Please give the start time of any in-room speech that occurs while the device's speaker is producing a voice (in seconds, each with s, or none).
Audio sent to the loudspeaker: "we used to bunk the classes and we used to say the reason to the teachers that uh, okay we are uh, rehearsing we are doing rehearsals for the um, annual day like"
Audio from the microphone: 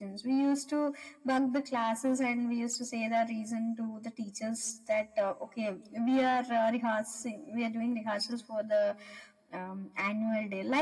none